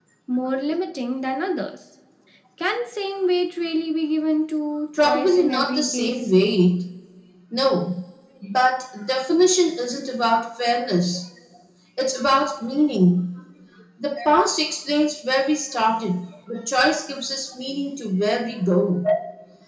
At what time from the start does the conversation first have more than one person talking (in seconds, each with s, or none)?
5.0 s